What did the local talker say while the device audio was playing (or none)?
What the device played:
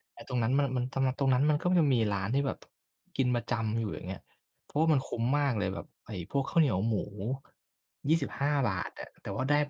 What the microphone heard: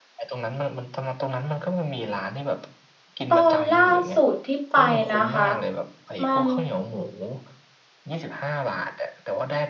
ตอนล่าสุดที่ไปนะคะมัน